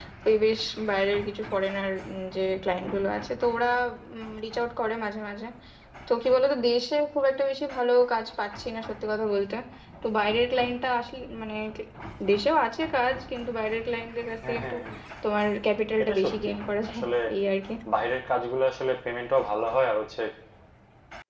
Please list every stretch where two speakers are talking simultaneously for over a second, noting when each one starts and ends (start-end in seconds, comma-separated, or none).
none